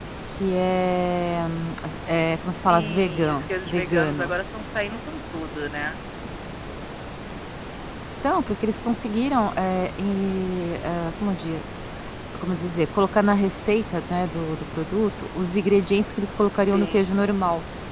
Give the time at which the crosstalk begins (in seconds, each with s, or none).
2.5 s